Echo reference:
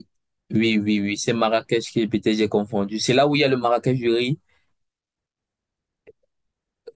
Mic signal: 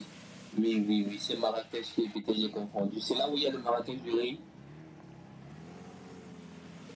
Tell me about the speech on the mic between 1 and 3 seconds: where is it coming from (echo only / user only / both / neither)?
echo only